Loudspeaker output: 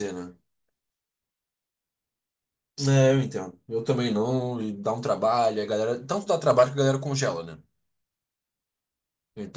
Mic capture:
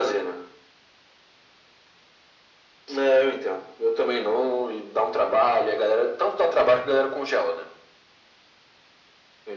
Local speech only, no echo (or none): none